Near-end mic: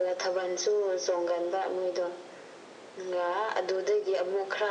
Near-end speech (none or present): none